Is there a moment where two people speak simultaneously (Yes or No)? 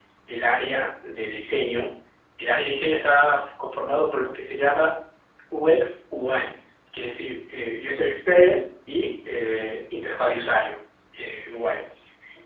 No